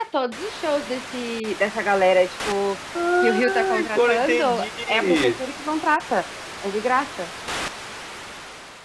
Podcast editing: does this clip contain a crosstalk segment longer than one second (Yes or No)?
Yes